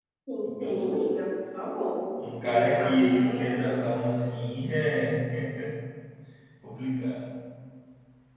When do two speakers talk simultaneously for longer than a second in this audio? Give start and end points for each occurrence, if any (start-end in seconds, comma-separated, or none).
2.5-3.8